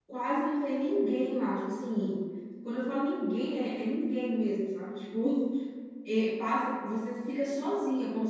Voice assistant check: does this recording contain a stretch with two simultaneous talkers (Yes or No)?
No